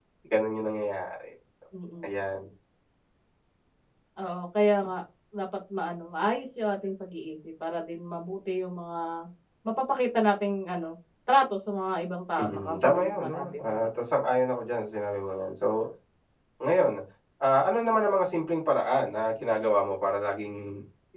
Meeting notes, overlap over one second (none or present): present